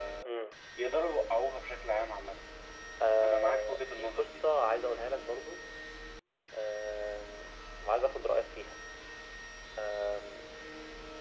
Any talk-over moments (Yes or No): Yes